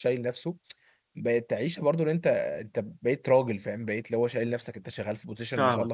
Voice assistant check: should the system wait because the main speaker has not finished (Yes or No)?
Yes